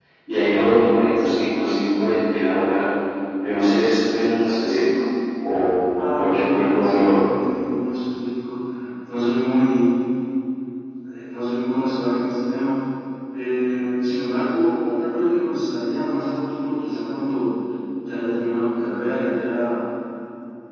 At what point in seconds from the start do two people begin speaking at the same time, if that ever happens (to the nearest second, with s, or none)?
6 s